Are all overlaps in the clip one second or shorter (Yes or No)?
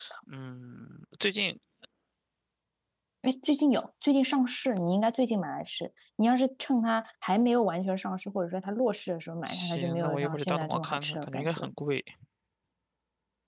No